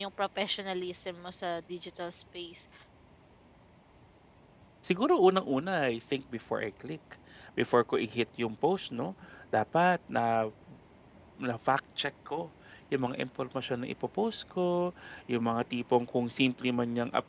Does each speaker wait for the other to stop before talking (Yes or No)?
Yes